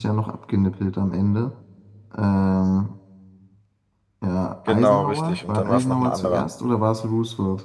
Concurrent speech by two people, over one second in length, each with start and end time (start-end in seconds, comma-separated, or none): 4.7-6.4